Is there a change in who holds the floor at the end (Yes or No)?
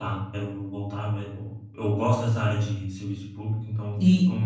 Yes